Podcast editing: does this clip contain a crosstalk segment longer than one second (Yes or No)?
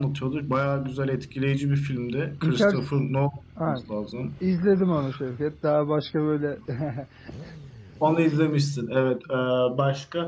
No